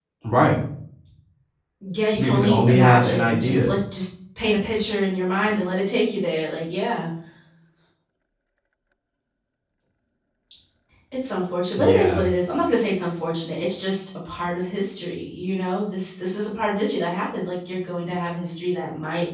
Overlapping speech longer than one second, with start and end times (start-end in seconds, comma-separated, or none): 2.2-3.7